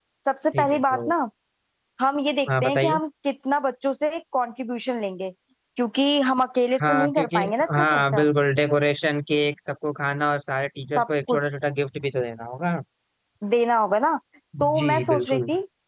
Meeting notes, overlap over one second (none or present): present